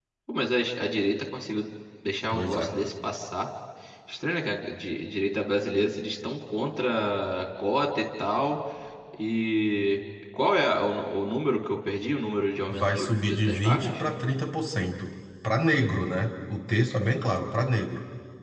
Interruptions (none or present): present